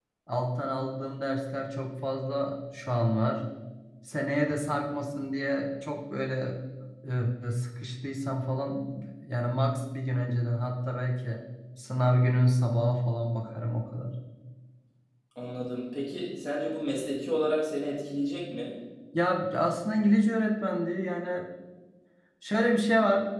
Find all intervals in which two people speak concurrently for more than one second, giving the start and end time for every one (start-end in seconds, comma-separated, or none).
none